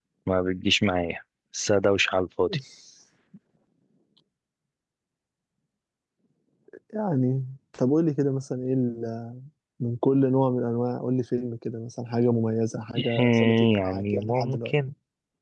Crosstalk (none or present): present